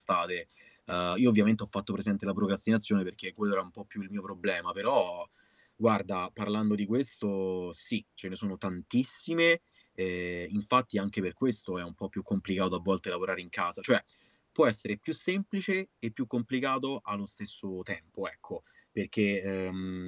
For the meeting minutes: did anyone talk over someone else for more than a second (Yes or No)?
No